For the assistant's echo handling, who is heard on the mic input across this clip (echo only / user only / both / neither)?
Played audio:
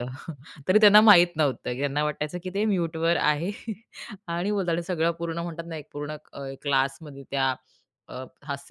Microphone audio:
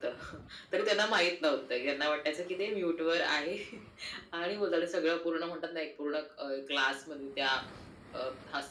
echo only